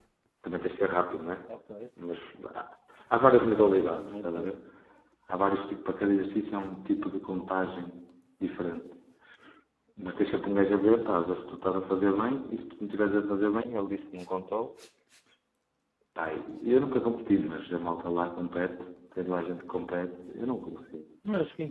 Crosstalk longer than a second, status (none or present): present